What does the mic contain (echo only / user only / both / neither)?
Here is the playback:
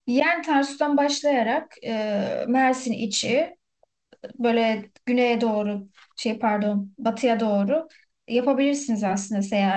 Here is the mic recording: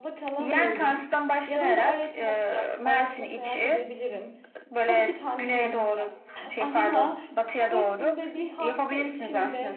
both